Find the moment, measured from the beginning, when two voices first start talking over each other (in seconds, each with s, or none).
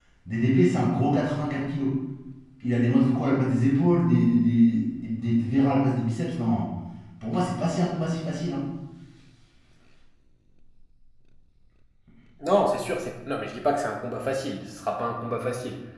none